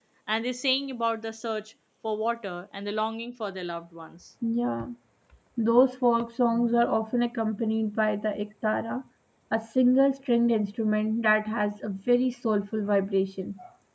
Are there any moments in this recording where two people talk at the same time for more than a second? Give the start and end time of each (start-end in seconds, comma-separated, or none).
none